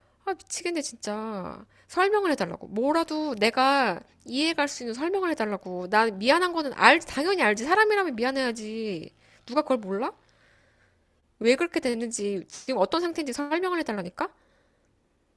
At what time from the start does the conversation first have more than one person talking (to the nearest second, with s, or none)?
none